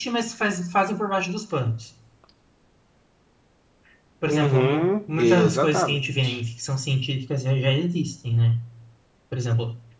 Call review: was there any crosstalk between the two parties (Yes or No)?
Yes